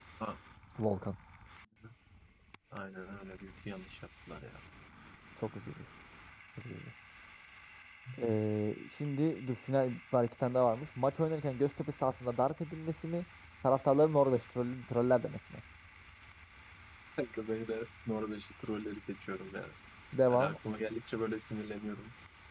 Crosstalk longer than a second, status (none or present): none